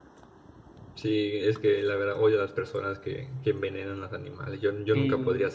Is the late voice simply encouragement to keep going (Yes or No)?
No